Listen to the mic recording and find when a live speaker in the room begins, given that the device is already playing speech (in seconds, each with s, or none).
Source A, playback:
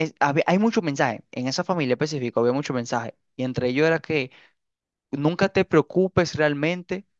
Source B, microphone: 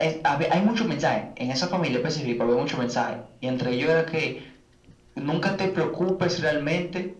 none